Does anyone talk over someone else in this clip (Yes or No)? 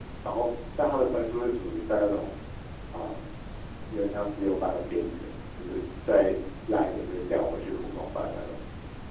No